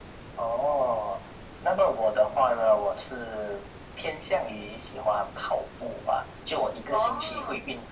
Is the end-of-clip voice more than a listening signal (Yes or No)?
No